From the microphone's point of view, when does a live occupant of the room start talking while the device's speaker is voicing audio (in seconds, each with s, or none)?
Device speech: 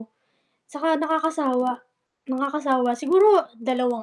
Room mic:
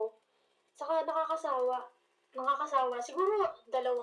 none